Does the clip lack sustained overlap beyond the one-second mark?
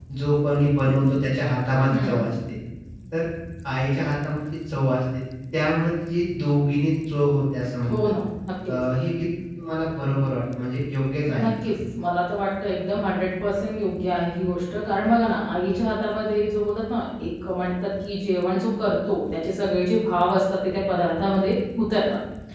Yes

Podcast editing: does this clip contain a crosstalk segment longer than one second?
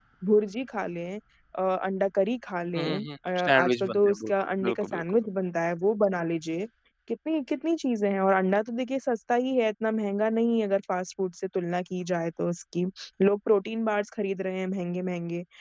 Yes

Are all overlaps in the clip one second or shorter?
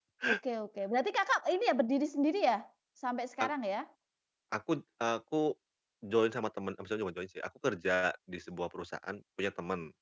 Yes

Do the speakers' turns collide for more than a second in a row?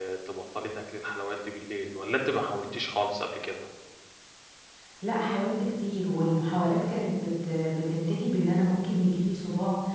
No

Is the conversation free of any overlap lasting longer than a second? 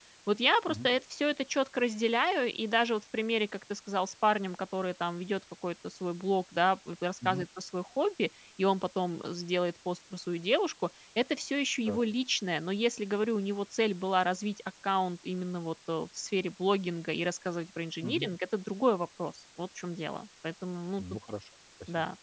Yes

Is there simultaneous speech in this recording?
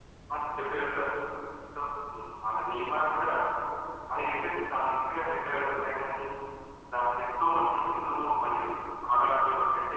No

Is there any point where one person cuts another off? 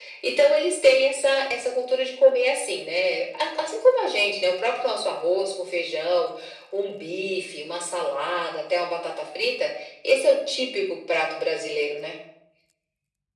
No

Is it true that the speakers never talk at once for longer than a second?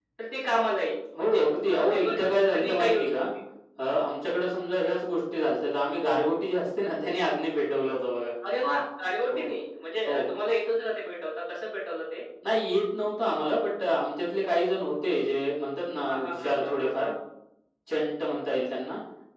No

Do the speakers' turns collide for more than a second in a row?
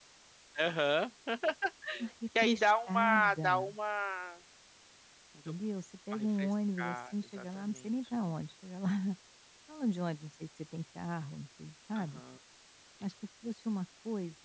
Yes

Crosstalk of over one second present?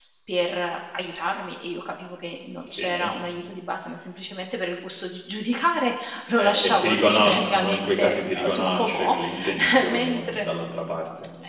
Yes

